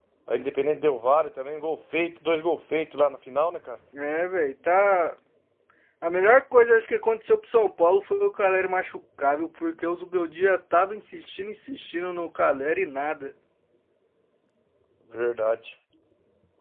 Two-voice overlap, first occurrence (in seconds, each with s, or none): none